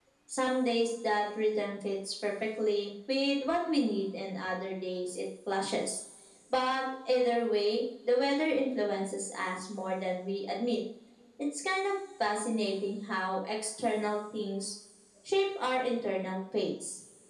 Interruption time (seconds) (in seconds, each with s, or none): none